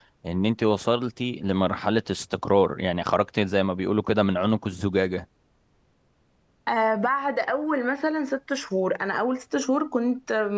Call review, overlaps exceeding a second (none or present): none